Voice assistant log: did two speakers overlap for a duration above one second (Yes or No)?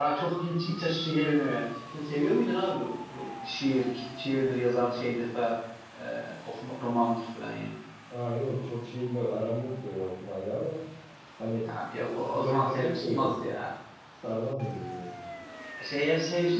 Yes